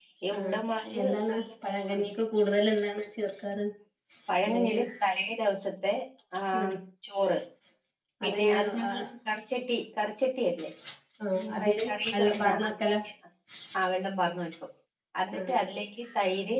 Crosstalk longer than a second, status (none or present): present